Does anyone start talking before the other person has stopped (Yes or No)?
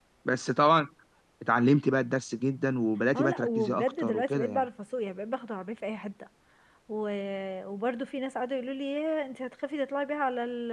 Yes